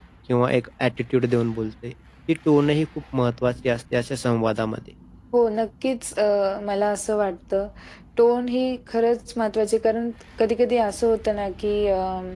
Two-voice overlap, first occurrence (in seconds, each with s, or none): none